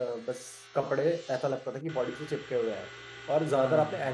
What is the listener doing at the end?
listening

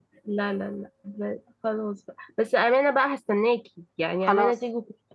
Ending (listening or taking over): listening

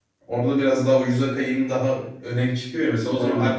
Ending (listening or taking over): listening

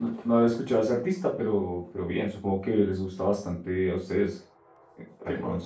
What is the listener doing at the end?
listening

